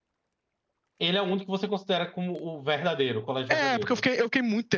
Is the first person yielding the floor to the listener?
Yes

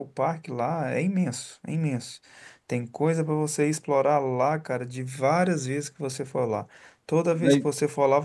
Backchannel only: Yes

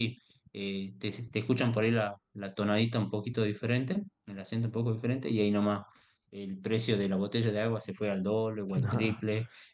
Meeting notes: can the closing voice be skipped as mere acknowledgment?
Yes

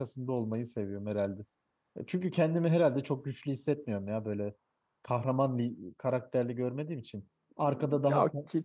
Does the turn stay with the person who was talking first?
No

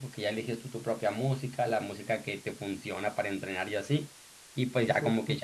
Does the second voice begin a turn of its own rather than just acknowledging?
No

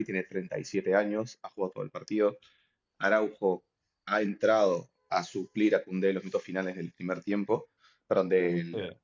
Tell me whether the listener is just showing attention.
Yes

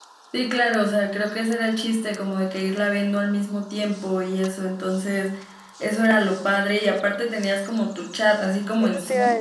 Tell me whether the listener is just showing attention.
No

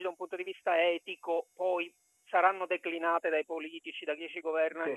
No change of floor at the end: Yes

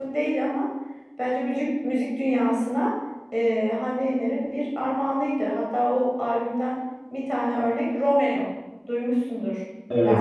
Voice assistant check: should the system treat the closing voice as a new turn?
Yes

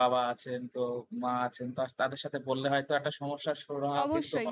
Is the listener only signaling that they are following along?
No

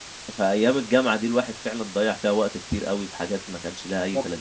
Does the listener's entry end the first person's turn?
Yes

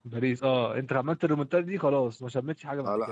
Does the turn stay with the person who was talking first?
No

